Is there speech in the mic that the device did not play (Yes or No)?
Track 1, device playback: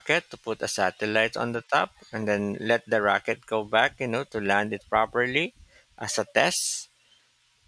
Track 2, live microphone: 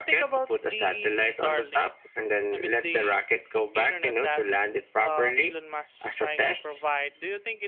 Yes